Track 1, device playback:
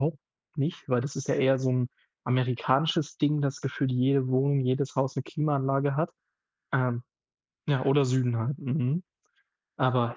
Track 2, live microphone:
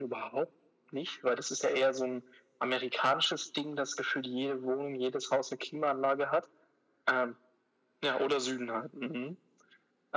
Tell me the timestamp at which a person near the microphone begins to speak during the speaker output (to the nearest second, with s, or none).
none